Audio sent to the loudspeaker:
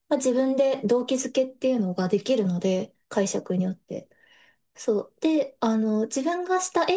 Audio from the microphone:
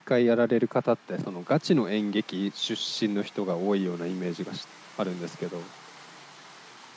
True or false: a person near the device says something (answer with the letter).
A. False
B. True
B